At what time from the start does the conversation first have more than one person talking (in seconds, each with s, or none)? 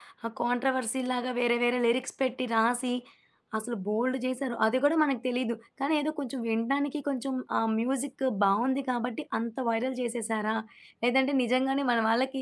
none